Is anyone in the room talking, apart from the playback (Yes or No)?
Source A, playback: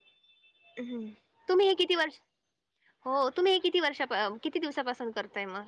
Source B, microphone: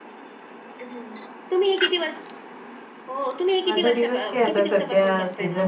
Yes